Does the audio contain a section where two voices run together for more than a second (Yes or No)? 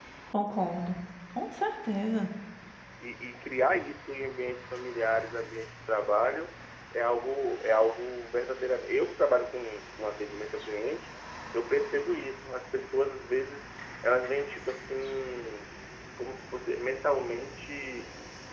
No